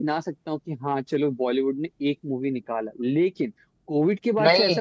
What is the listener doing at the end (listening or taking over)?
listening